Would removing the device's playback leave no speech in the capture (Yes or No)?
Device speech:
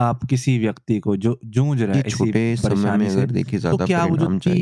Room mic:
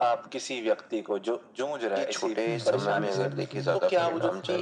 No